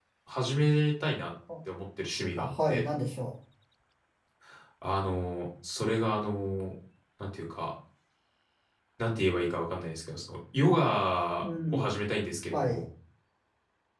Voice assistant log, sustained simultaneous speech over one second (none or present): none